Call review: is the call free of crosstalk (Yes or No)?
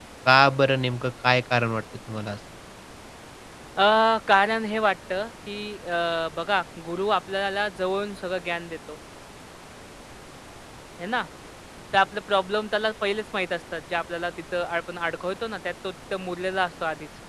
Yes